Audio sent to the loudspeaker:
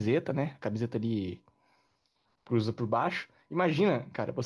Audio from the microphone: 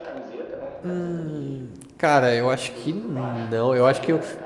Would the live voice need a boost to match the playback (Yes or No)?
No